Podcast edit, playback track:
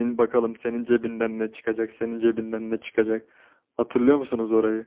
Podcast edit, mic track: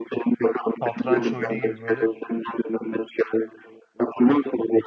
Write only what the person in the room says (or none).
satranç oyunu gibi böyle